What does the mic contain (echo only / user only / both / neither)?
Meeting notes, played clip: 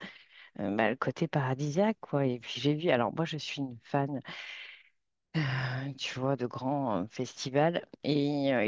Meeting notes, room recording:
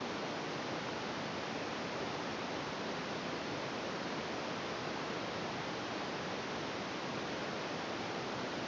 neither